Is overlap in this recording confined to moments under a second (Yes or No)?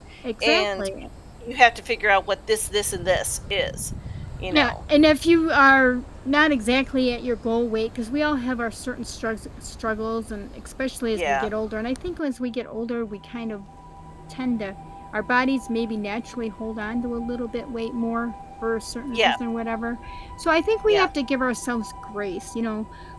Yes